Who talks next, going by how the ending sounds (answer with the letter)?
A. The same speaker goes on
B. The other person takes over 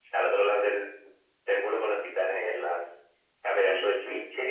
B